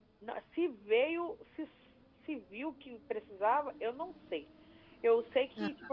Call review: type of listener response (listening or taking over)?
listening